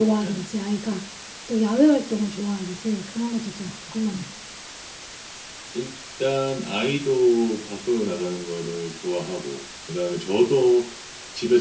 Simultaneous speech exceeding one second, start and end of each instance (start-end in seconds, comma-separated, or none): none